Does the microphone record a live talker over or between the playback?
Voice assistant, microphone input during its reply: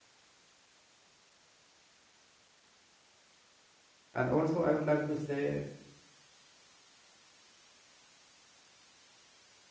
Yes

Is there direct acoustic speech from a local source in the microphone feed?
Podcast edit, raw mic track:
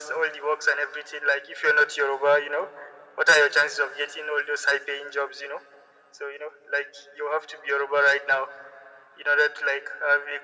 No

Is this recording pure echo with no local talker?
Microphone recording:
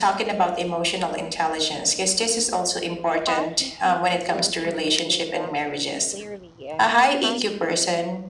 No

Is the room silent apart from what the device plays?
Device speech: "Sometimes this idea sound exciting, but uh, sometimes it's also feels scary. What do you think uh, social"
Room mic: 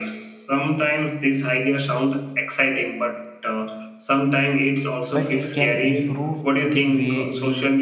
No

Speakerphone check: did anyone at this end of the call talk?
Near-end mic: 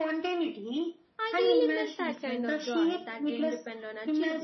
Yes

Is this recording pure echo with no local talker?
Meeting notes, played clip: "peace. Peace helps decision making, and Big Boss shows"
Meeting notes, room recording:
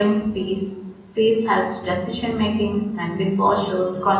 Yes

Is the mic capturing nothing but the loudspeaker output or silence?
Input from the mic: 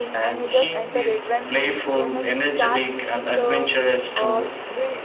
No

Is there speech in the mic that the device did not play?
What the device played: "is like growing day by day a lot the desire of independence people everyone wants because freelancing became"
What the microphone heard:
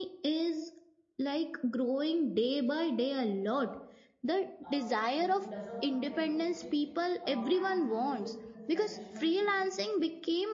Yes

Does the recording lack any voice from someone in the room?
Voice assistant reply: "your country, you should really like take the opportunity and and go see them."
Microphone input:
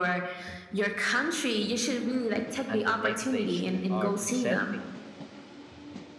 No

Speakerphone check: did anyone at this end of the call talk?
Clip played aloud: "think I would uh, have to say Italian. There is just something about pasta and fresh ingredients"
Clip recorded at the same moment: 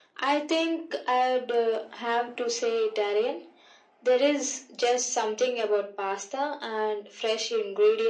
No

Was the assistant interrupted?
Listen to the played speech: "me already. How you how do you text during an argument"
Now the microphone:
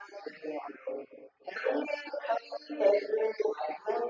No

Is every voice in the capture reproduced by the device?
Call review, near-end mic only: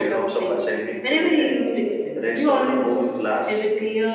No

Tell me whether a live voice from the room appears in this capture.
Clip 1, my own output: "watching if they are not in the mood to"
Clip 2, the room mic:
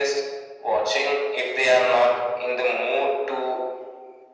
No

